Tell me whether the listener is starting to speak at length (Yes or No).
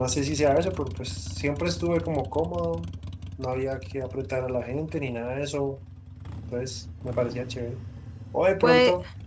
No